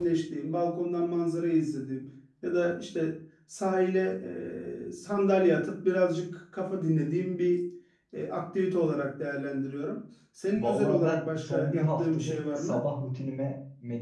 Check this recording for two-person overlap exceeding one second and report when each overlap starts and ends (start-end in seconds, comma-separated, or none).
10.6-12.8